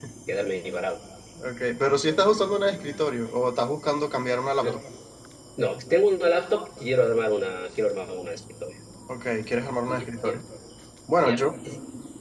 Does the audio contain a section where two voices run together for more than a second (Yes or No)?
No